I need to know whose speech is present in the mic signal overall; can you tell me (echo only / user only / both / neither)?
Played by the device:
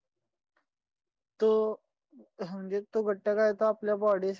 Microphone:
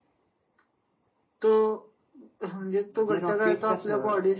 both